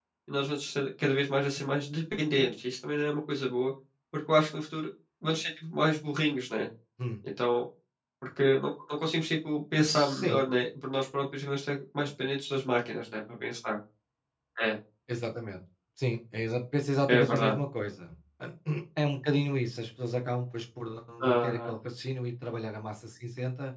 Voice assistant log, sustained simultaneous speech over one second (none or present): none